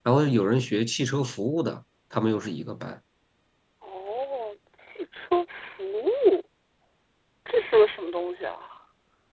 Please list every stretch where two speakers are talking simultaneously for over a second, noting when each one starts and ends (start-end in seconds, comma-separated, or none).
none